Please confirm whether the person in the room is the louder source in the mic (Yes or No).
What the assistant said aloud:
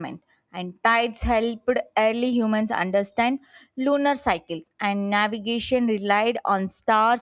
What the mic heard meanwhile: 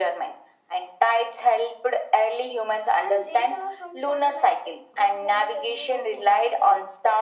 No